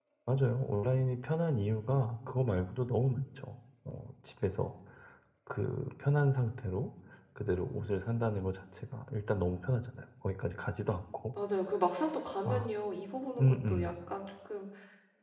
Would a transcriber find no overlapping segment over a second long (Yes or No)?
Yes